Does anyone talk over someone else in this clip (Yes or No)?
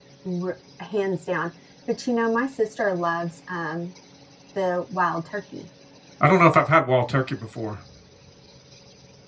No